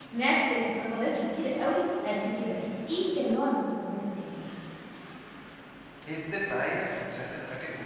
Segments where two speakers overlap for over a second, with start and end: none

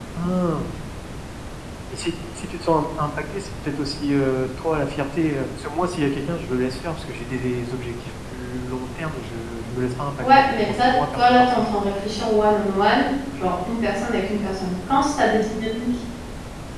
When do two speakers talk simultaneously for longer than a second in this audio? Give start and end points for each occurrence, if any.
10.2-11.6

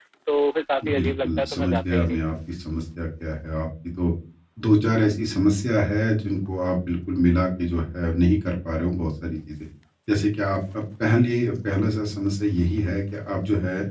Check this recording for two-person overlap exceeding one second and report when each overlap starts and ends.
0.8-2.4

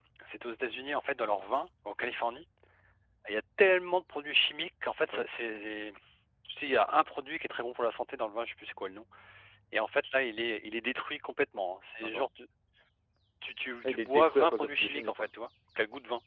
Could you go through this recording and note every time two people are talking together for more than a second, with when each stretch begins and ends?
13.8-15.3

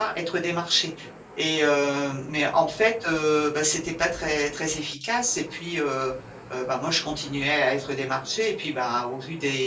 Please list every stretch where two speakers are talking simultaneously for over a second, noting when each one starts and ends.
none

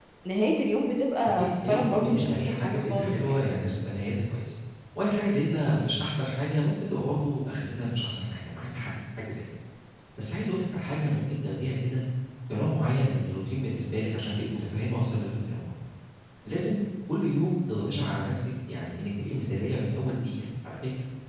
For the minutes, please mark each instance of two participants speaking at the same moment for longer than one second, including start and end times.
1.4-3.4

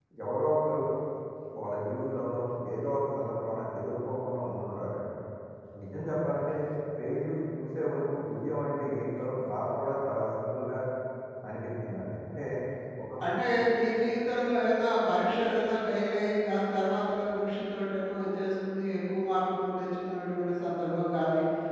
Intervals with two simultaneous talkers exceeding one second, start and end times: none

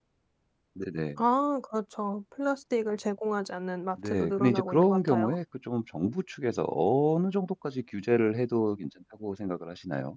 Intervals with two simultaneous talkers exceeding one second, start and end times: 4.0-5.3

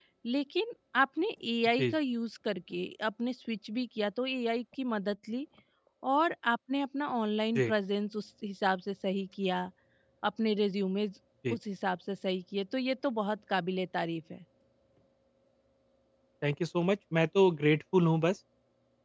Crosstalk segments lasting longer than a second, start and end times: none

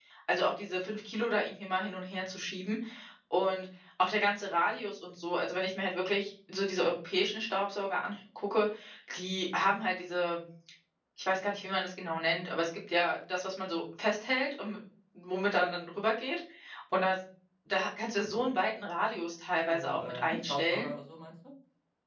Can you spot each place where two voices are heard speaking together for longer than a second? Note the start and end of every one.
19.7-20.9

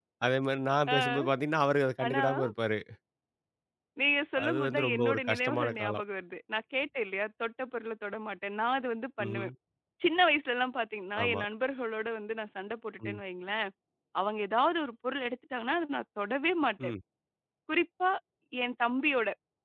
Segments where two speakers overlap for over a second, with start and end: 4.4-6.0

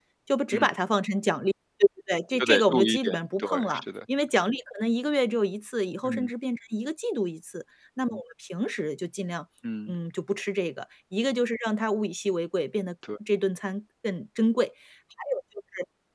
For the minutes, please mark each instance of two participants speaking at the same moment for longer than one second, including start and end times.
2.4-3.8

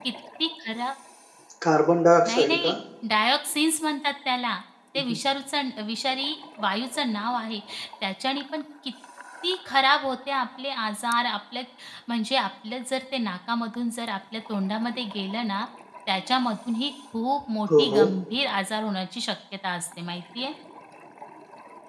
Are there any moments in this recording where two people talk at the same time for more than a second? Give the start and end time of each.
none

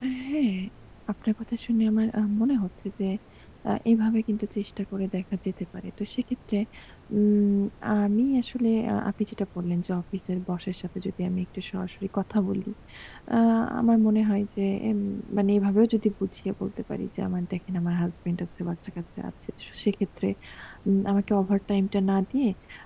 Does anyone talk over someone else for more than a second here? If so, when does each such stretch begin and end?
none

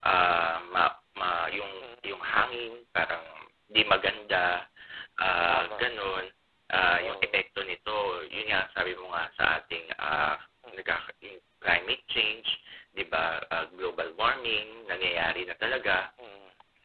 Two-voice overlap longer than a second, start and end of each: none

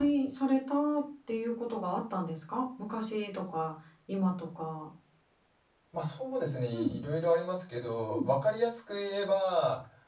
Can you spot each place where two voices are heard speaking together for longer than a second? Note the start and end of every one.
none

